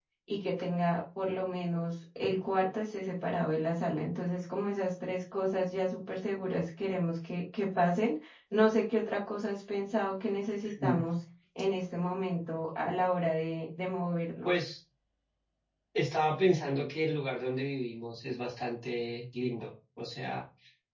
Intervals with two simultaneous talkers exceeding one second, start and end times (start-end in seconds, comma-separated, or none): none